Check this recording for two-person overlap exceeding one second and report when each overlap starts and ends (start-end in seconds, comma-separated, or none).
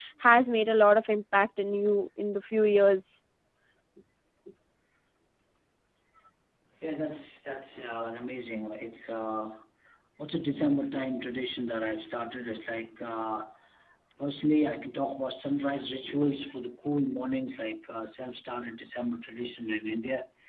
none